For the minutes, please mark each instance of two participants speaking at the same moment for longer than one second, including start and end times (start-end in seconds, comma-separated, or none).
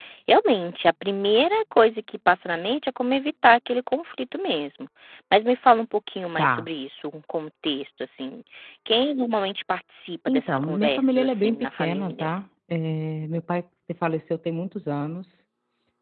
10.3-12.3